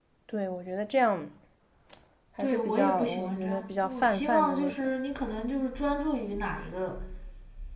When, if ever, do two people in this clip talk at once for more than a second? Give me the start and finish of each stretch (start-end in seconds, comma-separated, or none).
2.4-4.8